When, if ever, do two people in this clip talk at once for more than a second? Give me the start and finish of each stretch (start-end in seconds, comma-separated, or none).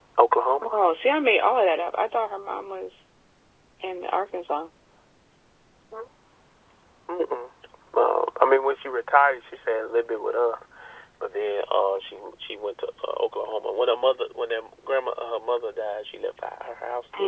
none